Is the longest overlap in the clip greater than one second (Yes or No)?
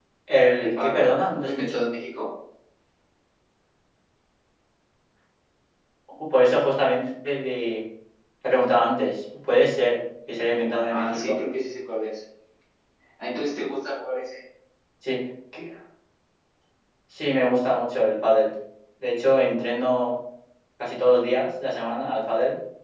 Yes